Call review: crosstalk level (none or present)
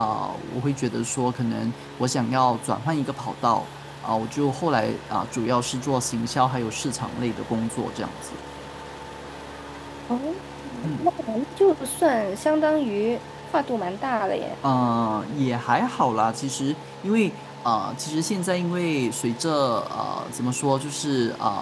none